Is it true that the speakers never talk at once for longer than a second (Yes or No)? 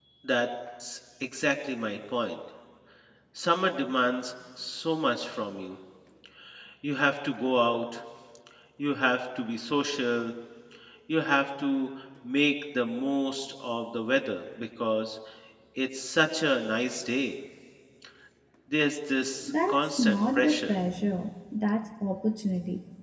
No